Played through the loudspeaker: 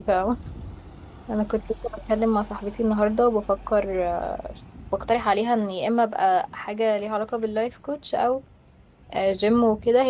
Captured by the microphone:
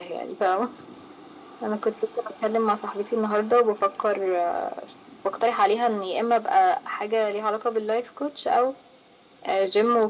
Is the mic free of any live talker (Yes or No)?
Yes